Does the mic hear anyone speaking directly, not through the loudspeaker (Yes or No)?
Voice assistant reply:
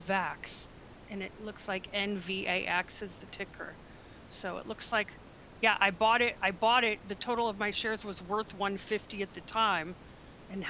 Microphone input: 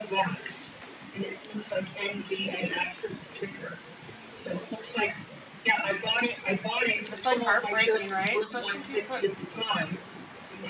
Yes